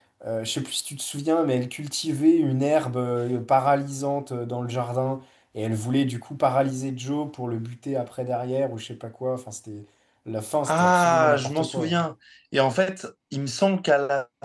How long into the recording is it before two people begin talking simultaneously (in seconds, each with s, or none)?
10.7 s